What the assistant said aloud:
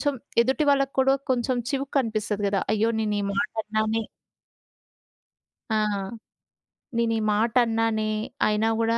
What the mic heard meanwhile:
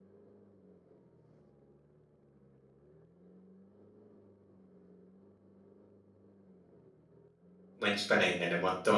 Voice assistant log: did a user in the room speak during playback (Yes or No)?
Yes